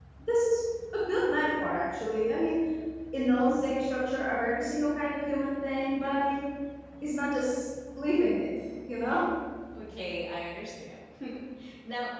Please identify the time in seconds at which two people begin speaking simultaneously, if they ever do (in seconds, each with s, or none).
none